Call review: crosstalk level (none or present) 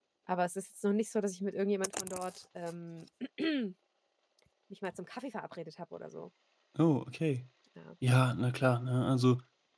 none